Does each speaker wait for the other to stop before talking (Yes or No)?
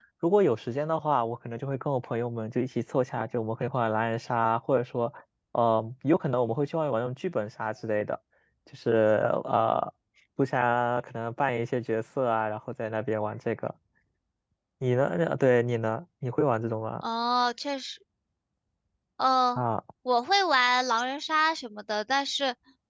Yes